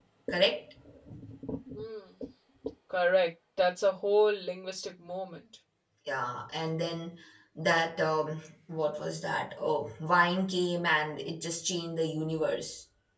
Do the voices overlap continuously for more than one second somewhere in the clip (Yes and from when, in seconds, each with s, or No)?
No